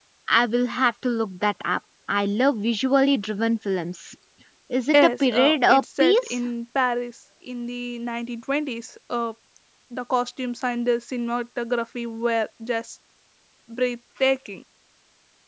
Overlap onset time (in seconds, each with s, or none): 4.9 s